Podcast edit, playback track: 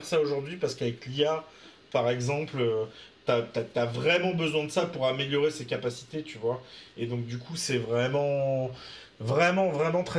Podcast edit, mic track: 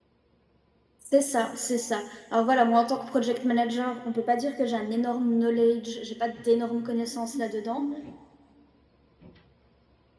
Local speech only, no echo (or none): C'est ça, c'est ça. Alors voilà, moi en tant que project manager, on peut pas dire que j'ai un énorme knowledge, j'ai pas d'énormes connaissances là-dedans.